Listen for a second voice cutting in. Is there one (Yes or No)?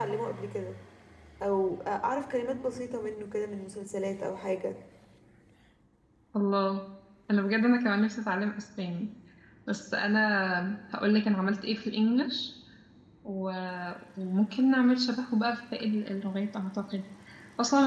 No